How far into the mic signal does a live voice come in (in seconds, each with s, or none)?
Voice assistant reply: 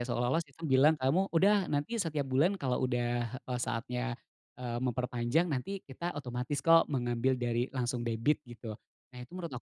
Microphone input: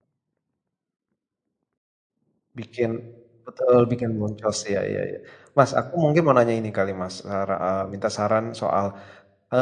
2.5 s